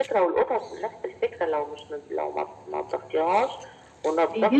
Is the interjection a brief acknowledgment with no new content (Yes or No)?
No